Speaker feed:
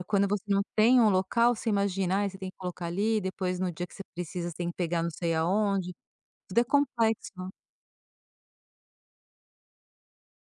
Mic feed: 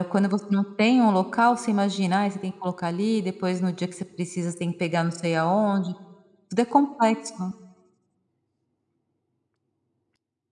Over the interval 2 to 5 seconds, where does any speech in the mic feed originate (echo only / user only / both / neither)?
echo only